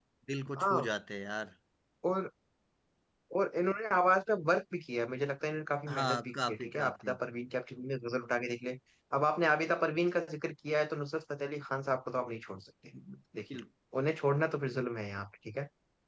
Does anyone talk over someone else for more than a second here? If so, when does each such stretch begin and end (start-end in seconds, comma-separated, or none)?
5.9-7.2